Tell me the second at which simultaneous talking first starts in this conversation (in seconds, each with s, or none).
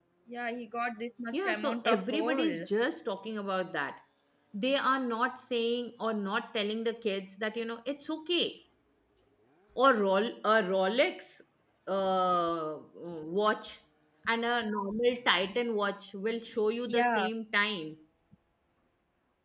1.3 s